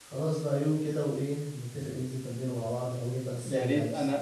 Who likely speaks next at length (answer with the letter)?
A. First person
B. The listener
B